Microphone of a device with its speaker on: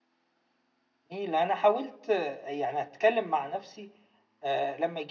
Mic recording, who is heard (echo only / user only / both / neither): user only